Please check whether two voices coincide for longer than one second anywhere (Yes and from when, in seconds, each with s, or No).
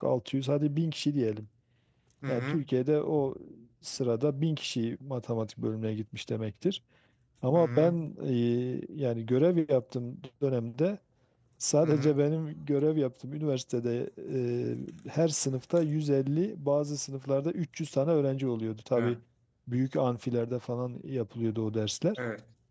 No